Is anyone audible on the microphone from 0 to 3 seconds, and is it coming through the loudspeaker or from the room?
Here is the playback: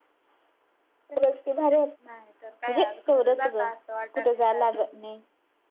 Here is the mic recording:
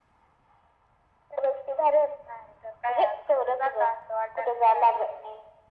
echo only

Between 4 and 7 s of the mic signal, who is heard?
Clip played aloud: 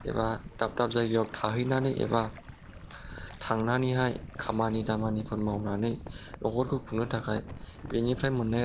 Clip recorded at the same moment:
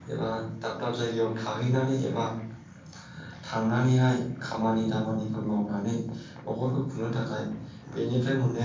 echo only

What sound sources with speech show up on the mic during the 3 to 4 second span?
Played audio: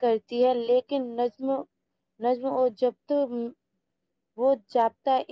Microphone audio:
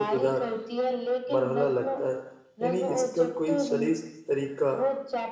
both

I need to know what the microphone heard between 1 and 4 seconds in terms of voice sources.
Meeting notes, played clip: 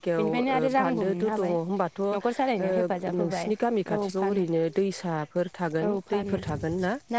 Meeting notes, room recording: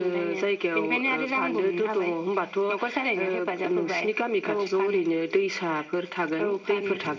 echo only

